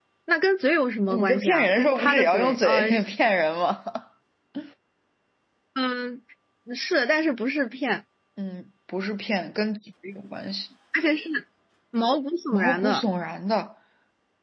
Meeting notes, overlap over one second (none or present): present